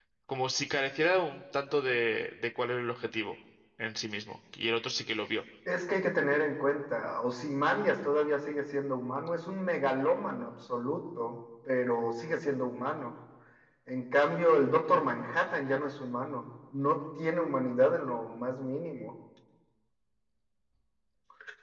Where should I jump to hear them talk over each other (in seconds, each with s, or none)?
none